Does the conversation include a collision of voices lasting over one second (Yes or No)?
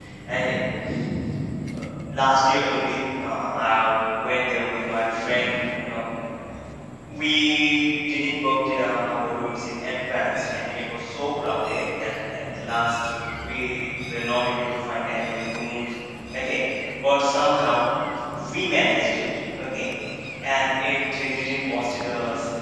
No